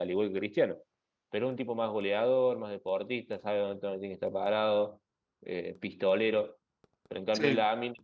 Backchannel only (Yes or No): Yes